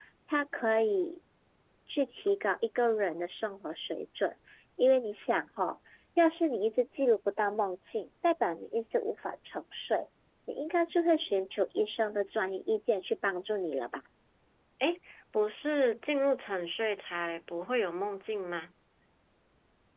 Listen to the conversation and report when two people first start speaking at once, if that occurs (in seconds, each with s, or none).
none